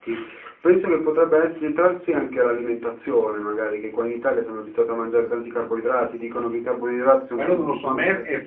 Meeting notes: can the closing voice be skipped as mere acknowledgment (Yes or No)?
No